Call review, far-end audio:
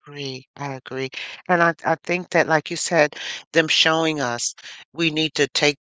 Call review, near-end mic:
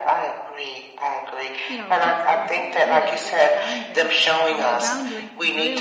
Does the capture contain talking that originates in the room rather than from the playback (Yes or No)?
Yes